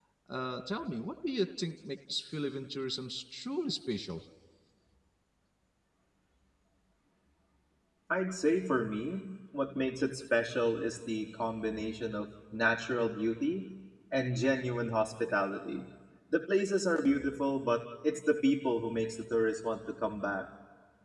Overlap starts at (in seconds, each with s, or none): none